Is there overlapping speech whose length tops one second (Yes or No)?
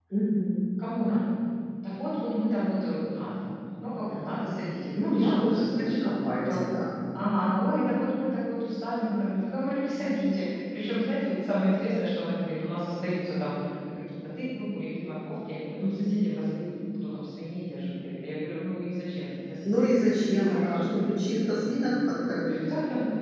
Yes